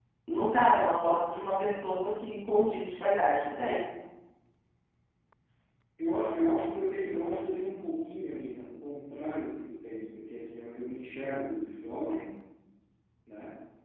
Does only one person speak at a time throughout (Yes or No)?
Yes